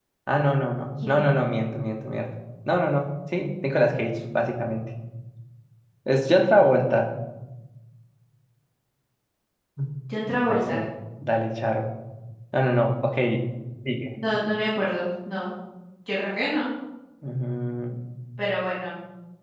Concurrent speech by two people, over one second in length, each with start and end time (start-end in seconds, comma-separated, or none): none